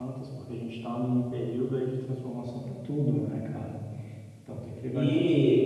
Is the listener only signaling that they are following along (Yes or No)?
No